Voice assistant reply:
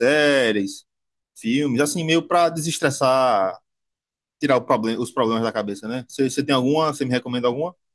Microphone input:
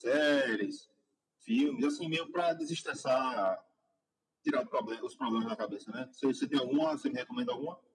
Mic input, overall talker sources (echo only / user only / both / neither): echo only